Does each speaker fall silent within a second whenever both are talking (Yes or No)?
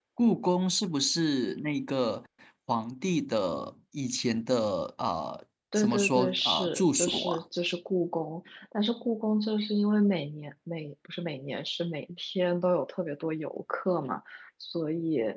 No